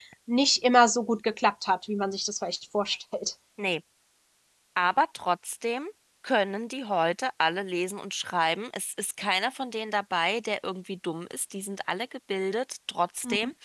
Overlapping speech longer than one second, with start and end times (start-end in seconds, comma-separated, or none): none